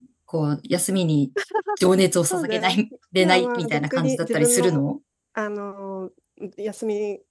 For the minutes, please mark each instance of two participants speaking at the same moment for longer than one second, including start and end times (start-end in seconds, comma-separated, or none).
3.2-4.8